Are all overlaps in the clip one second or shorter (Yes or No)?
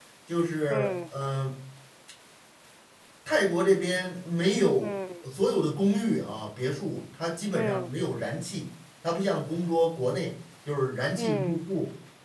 Yes